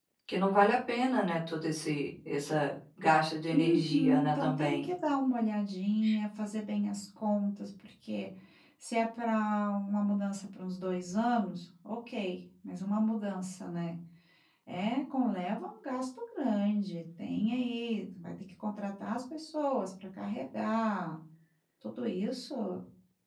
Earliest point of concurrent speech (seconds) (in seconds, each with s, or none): 3.5 s